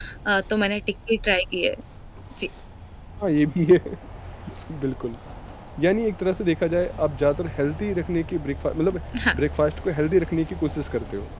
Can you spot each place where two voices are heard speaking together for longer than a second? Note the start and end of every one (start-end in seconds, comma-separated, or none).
none